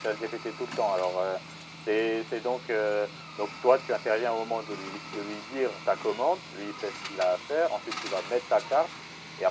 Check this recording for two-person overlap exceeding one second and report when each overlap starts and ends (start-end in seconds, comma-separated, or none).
none